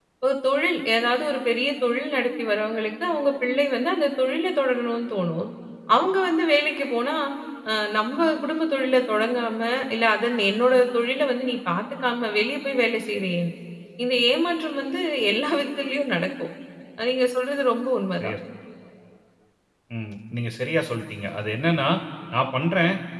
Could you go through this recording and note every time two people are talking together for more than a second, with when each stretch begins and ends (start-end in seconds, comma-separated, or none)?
none